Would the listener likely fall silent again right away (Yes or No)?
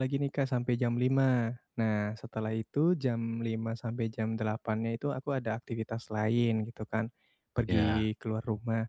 Yes